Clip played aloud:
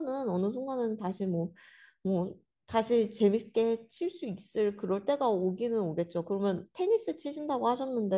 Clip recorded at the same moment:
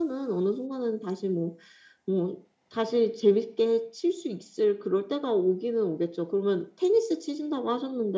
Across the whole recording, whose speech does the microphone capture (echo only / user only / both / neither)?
echo only